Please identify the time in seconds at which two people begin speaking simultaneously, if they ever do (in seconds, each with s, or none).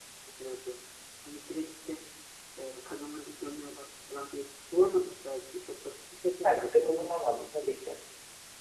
6.3 s